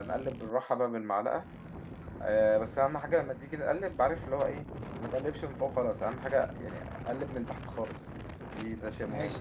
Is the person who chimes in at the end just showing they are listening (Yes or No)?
No